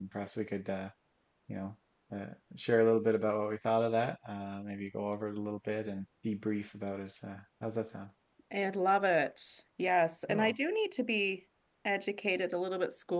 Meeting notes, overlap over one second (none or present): none